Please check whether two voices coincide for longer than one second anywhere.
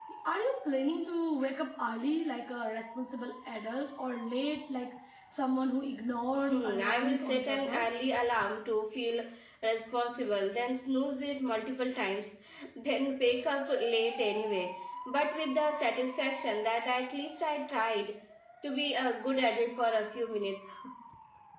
Yes, from 6.3 s

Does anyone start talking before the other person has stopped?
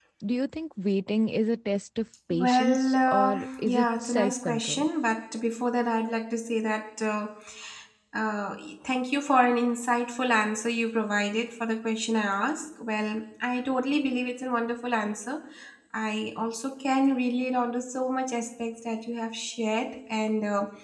Yes, from 2.3 s

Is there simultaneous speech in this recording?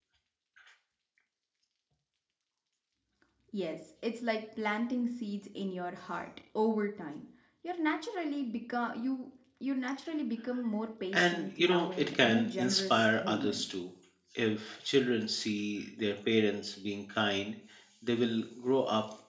Yes, from 11.1 s

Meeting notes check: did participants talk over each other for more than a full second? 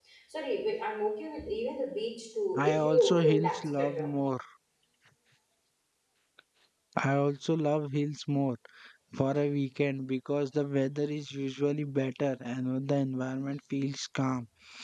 Yes, from 2.5 s

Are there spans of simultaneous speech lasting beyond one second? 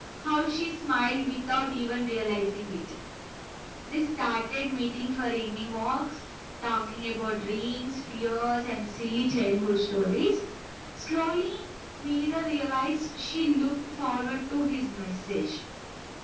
No

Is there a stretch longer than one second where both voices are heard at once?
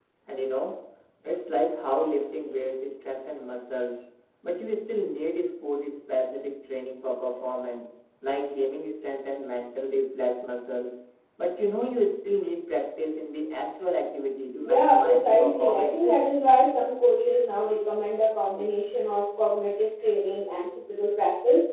Yes, from 14.6 s

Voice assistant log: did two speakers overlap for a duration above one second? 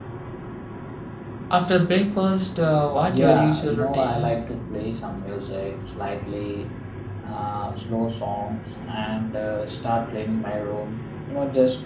Yes, from 3.0 s

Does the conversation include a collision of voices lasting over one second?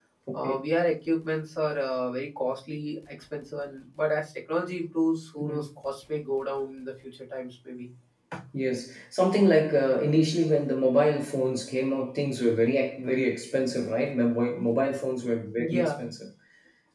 No

